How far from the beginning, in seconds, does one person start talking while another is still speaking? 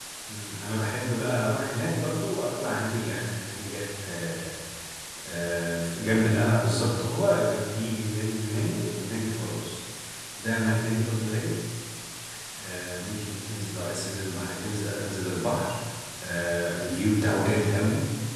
none

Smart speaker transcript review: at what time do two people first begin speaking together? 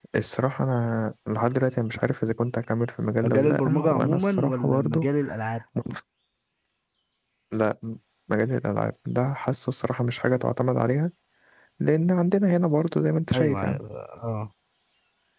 3 s

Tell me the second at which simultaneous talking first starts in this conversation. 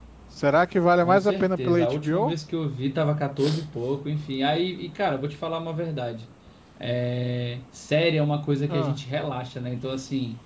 1 s

